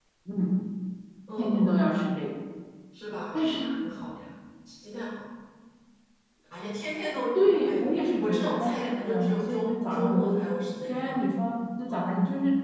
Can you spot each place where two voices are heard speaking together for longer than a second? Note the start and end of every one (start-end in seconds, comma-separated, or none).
7.4-10.3